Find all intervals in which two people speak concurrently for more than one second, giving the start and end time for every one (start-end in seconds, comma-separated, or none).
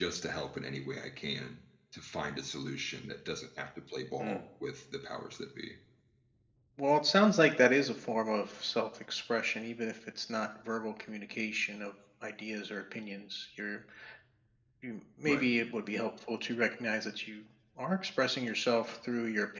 none